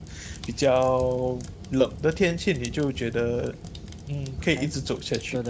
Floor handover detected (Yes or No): Yes